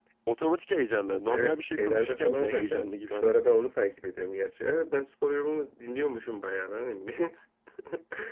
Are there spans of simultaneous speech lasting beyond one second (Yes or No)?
Yes